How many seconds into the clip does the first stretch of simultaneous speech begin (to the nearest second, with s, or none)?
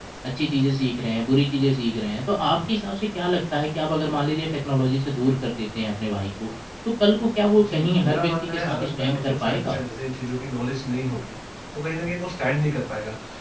8 s